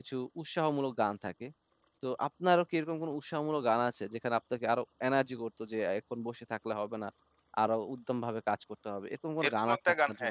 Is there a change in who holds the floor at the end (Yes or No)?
Yes